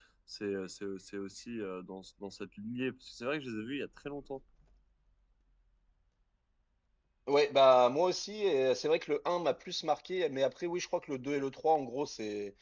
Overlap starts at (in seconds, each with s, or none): none